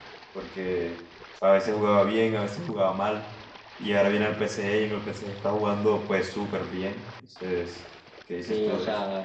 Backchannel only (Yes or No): No